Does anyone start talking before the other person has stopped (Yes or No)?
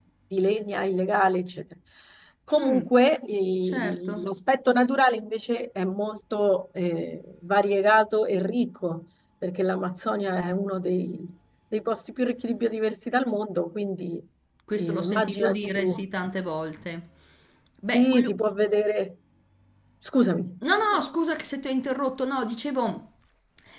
Yes